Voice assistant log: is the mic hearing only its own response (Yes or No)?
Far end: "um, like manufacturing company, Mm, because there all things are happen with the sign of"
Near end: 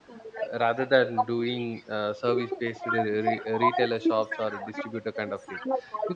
No